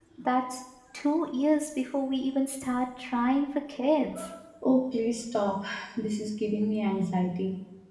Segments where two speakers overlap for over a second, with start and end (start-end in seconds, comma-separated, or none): none